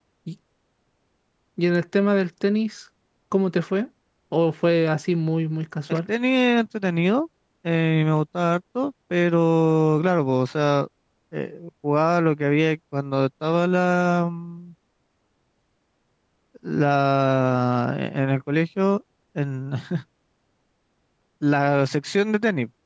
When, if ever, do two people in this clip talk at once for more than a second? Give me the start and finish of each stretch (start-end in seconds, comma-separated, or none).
none